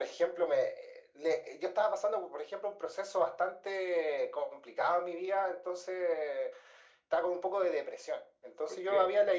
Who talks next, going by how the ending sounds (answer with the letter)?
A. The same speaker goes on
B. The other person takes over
A